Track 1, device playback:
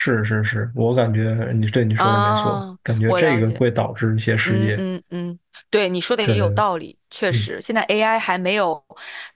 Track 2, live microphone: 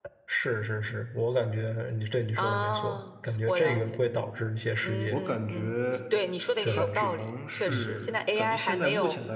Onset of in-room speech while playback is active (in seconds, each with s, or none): 3.6 s